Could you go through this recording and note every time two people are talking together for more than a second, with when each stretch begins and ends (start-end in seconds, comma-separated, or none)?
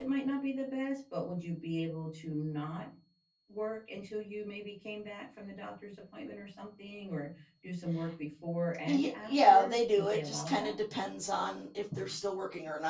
8.9-10.8